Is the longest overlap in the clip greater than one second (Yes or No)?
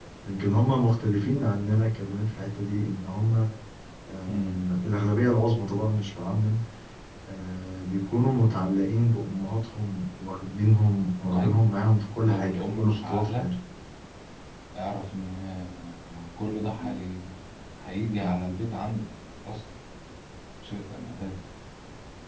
Yes